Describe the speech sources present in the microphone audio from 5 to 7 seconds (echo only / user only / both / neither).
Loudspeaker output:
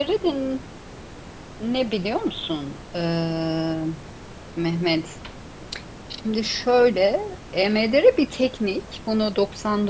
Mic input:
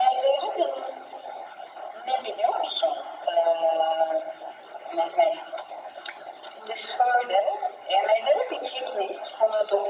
echo only